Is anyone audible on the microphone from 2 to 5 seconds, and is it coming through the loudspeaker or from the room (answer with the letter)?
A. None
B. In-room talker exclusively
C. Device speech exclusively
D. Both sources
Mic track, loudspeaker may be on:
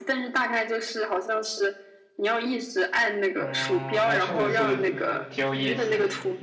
D